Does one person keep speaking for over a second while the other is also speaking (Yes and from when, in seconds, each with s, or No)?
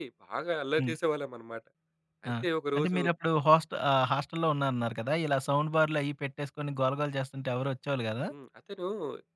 No